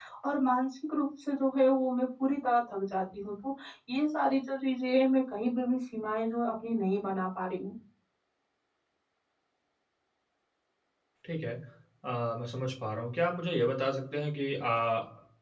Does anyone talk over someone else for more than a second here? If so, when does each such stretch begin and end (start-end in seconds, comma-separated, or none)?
none